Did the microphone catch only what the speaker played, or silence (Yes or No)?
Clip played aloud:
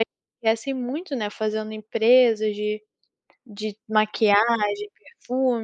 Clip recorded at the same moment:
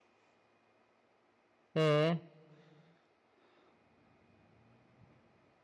No